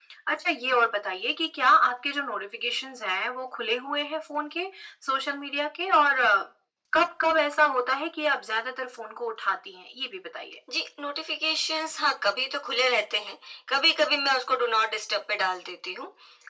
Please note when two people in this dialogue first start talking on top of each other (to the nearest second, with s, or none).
none